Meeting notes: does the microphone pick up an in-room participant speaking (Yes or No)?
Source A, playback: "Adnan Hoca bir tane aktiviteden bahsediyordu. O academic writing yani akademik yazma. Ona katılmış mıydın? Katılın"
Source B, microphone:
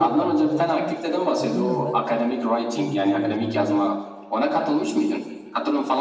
Yes